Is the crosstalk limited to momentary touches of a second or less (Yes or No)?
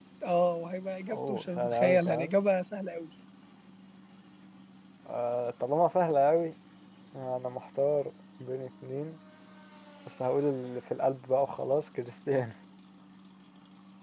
No